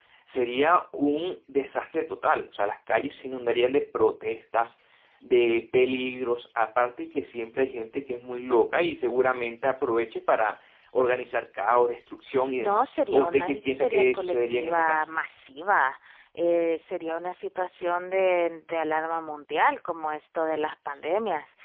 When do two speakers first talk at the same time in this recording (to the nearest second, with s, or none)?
13 s